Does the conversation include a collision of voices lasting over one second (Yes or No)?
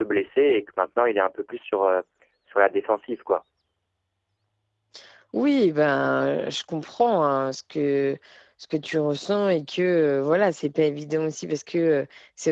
No